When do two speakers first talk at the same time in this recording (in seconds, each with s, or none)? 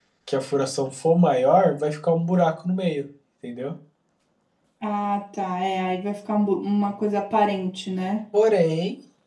none